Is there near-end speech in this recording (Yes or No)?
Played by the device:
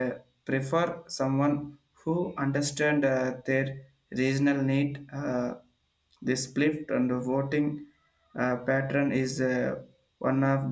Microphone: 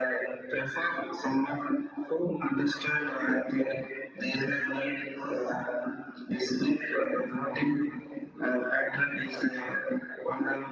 No